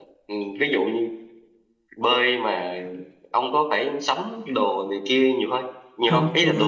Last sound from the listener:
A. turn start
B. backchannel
A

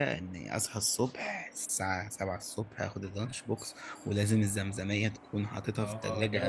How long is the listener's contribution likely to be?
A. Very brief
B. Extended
B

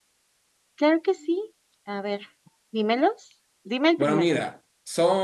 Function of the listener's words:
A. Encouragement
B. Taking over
B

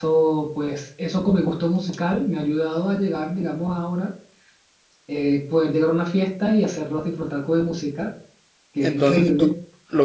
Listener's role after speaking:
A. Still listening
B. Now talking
B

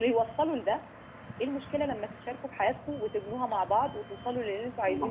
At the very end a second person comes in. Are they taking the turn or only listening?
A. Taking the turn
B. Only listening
A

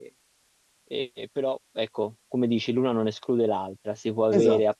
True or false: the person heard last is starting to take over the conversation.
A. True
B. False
B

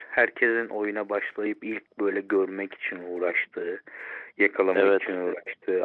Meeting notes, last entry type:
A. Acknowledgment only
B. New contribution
A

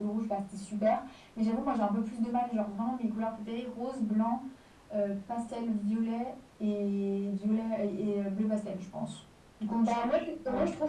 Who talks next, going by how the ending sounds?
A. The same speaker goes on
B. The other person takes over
B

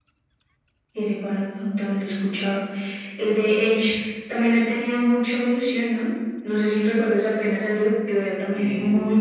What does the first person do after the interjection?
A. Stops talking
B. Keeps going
B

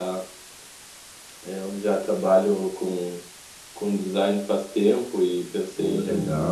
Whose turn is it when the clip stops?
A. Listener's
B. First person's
B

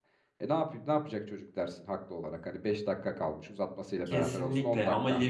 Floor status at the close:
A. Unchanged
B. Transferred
B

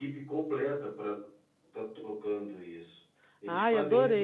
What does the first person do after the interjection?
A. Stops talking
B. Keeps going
B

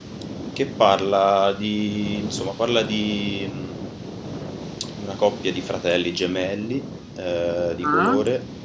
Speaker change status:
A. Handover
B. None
B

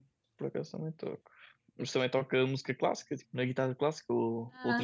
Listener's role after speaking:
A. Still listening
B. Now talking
B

